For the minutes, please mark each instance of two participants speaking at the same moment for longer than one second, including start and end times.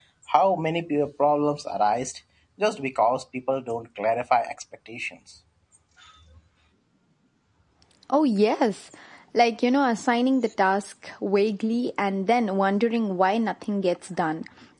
none

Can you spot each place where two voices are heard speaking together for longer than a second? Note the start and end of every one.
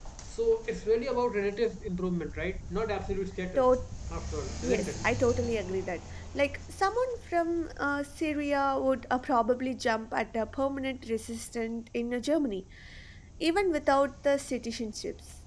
none

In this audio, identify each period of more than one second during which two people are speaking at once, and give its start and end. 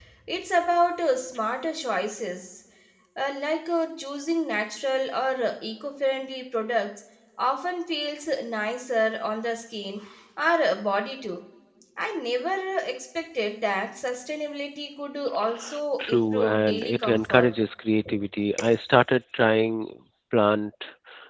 16.0-17.5

